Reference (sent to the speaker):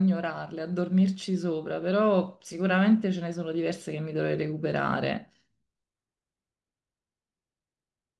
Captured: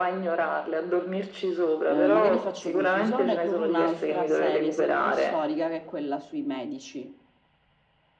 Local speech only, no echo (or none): Eh, magari faccio confusione con un'altra serie sempre storica che è quella sui medici.